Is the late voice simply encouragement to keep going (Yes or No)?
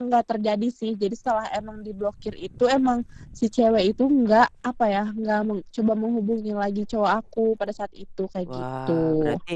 No